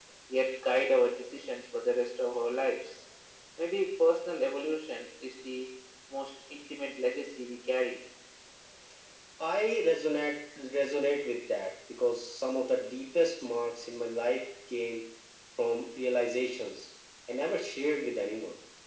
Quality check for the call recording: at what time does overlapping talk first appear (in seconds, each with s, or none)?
none